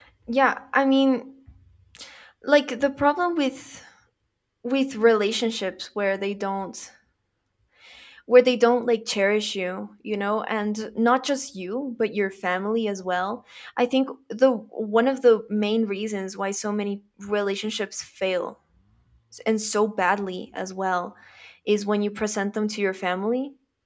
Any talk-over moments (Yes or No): No